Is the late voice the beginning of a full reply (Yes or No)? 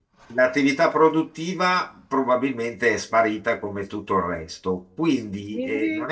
No